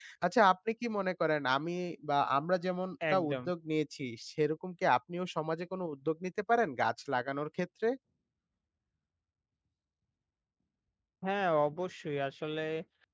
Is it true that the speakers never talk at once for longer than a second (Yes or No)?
Yes